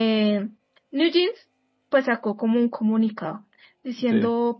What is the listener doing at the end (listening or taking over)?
listening